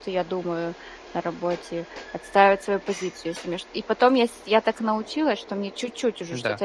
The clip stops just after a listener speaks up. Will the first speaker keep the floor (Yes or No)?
Yes